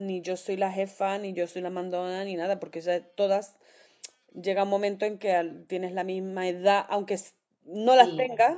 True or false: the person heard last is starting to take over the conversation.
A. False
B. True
A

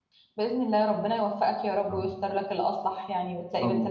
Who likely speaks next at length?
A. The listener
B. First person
A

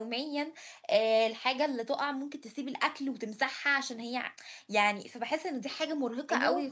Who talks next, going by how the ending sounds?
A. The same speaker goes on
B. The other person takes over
B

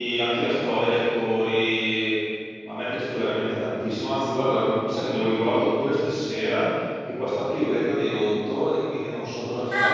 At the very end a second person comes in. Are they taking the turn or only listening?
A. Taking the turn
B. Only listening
A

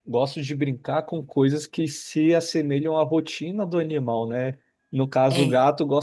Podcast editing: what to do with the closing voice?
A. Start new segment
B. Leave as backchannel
B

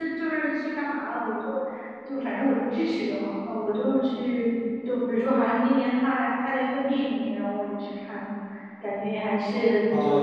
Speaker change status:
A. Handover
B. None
A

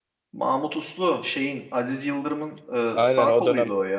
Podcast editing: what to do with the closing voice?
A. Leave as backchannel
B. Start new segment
B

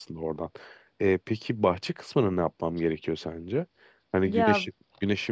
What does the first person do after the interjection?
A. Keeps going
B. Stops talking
A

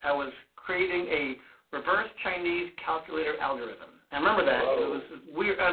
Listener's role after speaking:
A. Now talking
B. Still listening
B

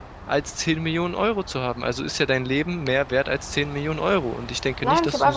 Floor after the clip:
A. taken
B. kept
A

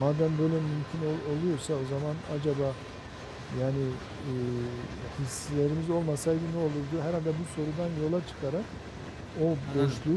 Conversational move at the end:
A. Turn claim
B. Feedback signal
B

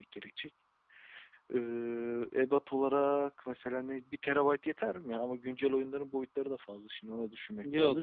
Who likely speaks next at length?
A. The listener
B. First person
A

